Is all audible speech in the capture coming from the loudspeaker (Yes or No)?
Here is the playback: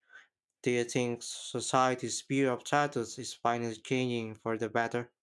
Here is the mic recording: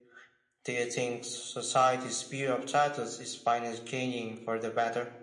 Yes